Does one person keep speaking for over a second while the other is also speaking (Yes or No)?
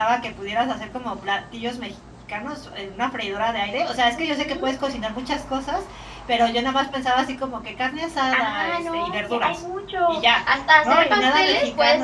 Yes